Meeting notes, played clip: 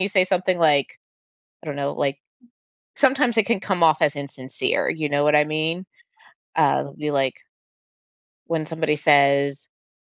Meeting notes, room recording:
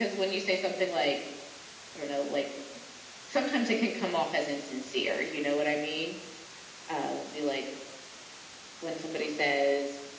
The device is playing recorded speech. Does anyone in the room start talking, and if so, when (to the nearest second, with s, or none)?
none